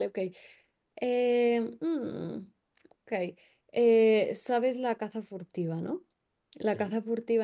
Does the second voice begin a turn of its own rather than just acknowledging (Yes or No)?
No